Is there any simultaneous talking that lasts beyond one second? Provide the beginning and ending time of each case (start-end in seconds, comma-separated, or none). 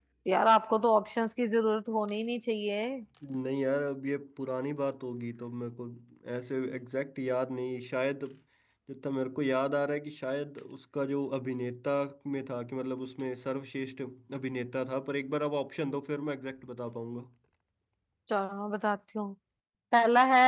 none